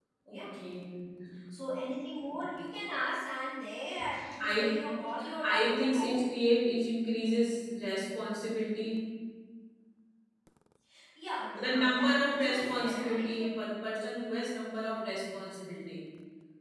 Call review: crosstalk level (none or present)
present